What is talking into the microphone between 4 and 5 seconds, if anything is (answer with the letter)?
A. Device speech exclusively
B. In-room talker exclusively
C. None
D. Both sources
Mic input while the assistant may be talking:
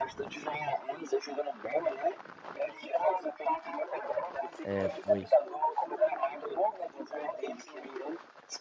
D